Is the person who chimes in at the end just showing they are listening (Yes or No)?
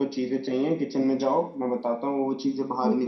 No